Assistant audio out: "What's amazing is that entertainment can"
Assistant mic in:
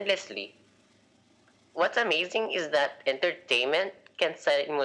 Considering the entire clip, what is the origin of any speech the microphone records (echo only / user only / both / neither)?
echo only